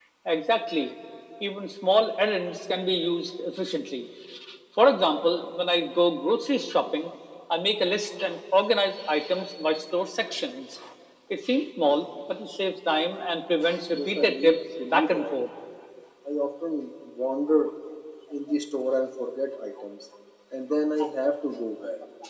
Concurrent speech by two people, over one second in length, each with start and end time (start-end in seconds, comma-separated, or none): 13.9-15.3